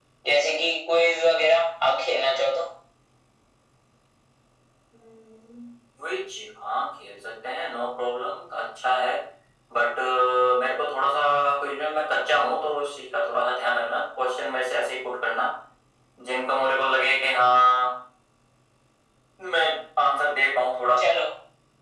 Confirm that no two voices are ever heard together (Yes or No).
Yes